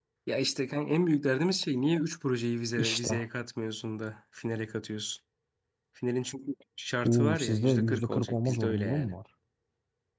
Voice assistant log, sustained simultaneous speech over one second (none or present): present